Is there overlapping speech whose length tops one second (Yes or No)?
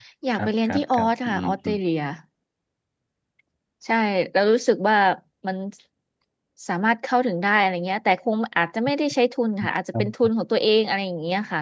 Yes